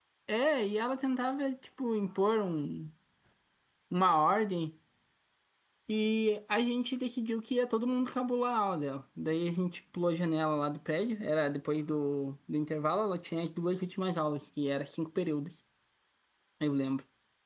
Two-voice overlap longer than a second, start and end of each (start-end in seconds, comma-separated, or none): none